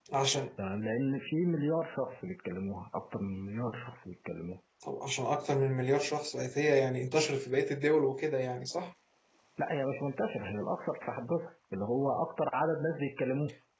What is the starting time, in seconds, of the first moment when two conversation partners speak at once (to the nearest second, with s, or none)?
none